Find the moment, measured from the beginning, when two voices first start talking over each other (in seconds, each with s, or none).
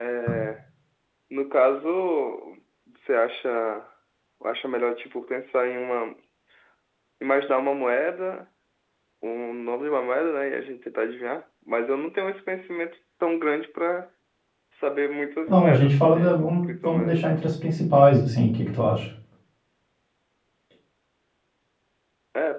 15.5 s